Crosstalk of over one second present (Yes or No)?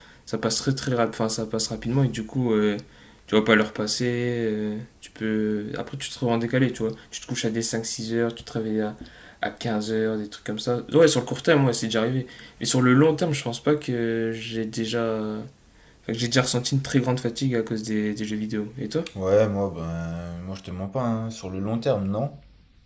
No